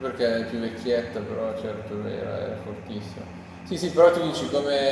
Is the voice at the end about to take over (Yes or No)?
No